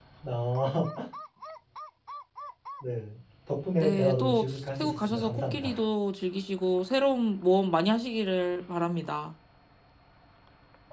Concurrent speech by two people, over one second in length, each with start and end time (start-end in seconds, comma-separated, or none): 3.8-5.8